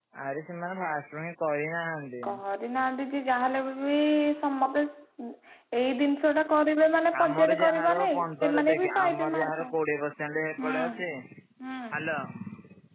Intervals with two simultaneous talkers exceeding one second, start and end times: 7.2-9.6

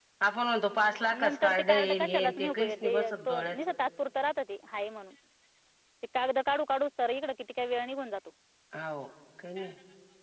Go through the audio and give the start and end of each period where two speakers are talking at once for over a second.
1.2-3.6

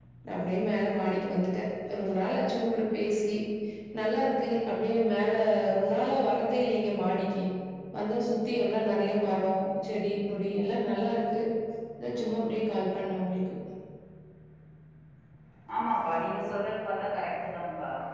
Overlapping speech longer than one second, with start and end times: none

